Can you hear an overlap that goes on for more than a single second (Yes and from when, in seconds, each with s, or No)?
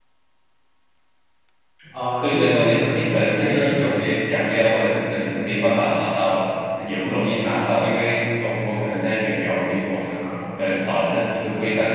Yes, from 2.2 s